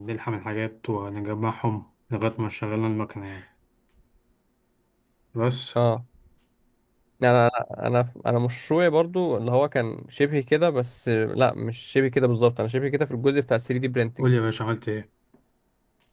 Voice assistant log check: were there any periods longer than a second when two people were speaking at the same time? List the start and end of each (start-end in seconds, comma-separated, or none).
none